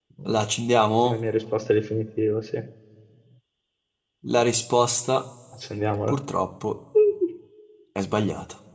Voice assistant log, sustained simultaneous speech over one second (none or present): none